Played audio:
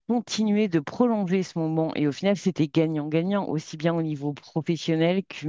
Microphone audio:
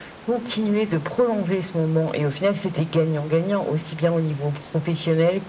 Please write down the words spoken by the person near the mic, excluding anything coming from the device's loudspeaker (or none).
none